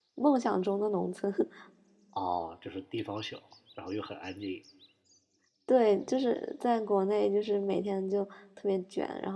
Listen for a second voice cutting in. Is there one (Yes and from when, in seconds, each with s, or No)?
No